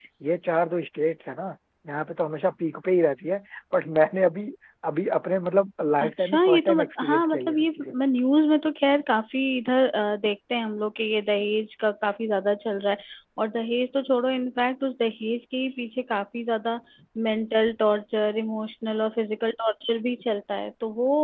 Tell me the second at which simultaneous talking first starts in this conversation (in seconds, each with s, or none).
6.0 s